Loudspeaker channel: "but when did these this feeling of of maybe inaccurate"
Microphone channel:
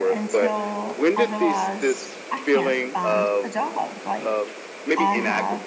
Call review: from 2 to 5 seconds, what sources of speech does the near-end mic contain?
both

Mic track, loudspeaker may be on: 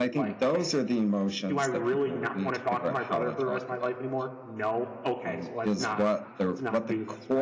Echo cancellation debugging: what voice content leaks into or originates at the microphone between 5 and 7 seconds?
both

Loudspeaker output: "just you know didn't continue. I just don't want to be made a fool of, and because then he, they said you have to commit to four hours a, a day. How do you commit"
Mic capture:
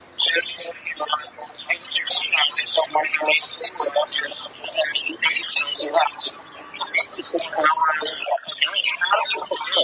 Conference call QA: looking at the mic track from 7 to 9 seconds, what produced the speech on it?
echo only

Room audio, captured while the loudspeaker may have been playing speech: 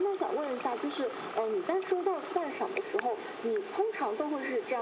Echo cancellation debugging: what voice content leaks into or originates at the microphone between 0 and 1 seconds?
echo only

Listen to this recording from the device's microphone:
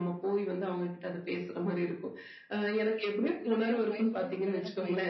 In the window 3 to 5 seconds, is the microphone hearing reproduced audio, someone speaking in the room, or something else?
both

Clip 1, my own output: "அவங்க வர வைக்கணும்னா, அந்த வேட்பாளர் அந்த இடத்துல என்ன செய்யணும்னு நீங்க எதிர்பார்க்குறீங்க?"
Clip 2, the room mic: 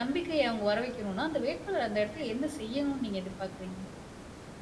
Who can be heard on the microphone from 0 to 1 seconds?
echo only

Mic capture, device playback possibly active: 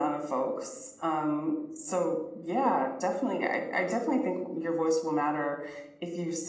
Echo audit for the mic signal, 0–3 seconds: echo only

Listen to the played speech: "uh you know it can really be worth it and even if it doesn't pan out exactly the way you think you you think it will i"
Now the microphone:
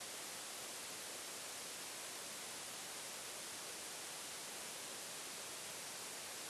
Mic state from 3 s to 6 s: neither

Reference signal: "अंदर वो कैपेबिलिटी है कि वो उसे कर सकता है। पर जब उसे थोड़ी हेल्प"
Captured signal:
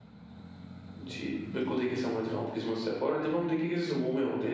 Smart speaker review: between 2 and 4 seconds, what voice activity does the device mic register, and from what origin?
user only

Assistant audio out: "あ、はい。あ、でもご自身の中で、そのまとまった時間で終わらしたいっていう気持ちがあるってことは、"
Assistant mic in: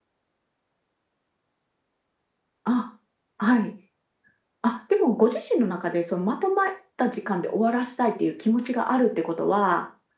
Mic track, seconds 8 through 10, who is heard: echo only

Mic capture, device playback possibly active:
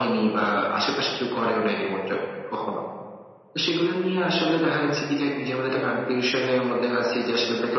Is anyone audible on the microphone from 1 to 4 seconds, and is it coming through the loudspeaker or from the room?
echo only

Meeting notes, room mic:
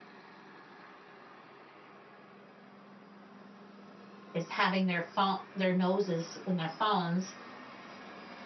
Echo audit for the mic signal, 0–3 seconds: neither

